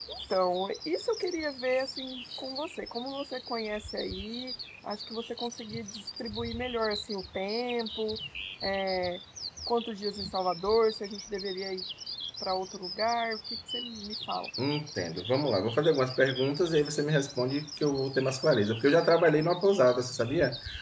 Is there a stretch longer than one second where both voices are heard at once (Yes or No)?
No